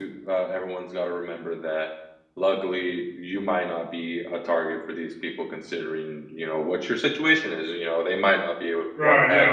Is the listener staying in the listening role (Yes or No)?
No